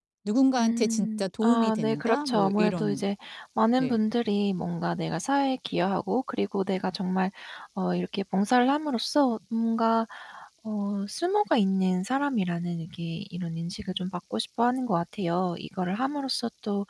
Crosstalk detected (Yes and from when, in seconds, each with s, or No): Yes, from 0.6 s